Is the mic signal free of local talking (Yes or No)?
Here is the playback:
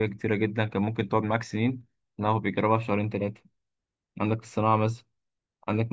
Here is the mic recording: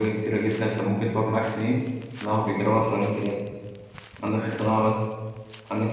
No